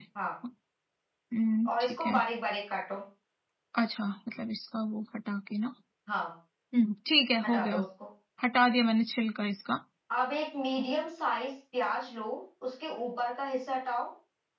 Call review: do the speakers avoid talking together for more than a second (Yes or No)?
Yes